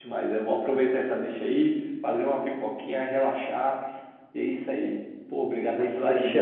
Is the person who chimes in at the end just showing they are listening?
No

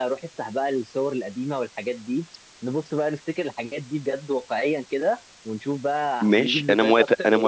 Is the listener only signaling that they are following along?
No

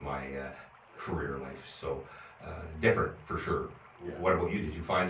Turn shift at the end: No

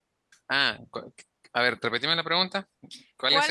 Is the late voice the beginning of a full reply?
Yes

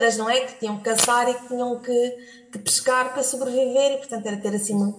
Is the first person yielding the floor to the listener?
No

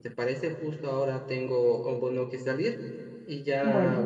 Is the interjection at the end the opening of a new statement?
No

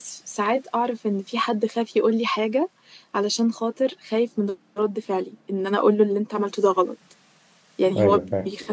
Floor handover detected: No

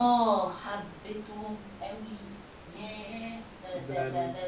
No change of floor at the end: No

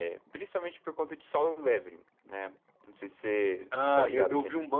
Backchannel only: No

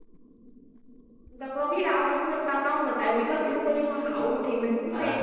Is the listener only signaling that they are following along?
No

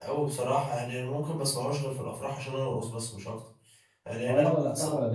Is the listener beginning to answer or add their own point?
Yes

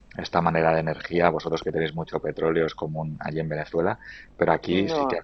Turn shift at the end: No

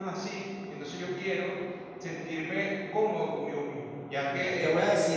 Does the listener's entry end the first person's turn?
Yes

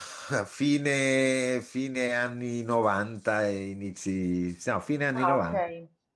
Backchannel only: No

